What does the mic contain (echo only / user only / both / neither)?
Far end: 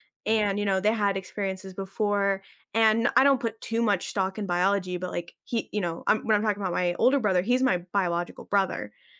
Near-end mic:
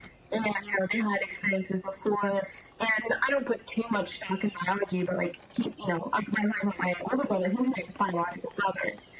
echo only